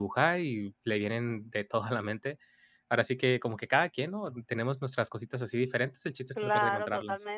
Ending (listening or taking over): taking over